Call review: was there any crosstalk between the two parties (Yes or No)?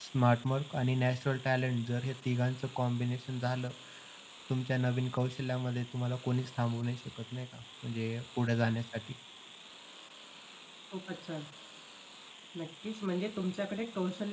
No